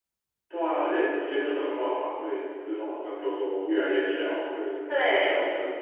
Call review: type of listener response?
taking over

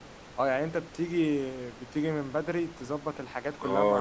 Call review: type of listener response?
taking over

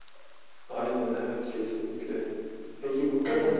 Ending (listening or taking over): listening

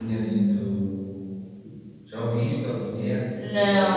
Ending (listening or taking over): taking over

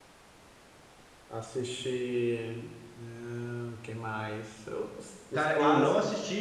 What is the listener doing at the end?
taking over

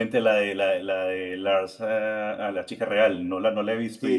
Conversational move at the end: taking over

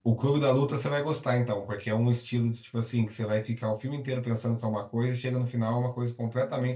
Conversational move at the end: listening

